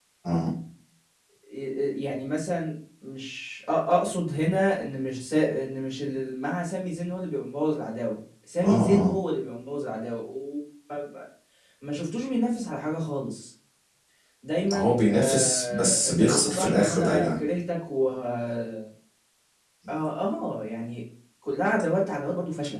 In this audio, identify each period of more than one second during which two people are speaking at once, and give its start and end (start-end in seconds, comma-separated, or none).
14.7-17.4